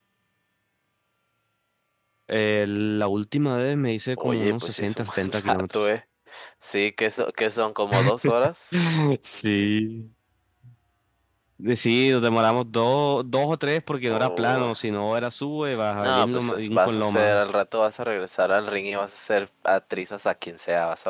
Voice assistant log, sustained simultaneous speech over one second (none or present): present